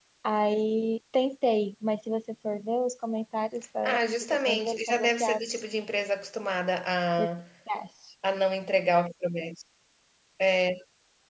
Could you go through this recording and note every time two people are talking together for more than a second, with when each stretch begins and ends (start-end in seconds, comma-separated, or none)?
3.8-5.6